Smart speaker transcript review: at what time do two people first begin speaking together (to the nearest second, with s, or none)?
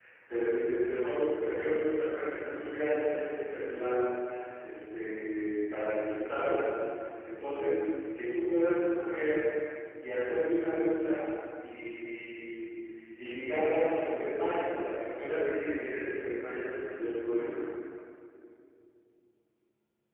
none